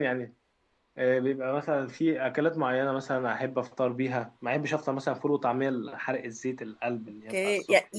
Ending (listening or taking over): taking over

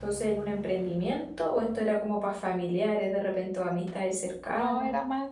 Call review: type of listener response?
taking over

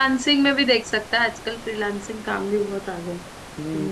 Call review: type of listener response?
taking over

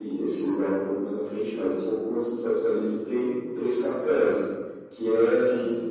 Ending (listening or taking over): listening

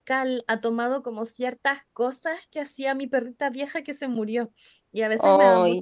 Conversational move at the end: listening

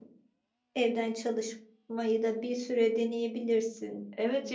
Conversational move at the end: taking over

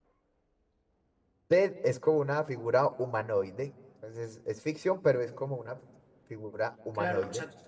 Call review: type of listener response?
taking over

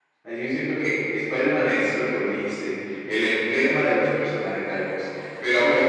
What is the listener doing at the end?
listening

